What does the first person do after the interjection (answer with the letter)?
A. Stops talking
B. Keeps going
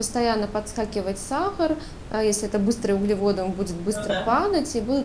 B